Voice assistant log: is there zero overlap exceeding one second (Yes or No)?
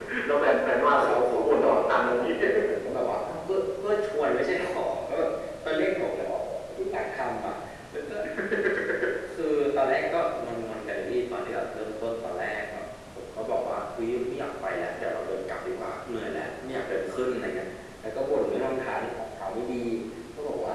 No